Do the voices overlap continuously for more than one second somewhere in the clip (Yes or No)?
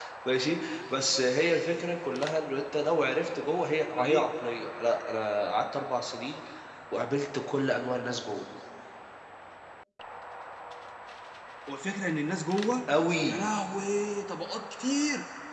No